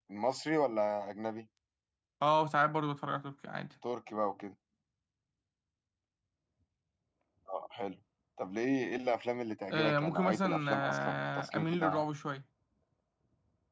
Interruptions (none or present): present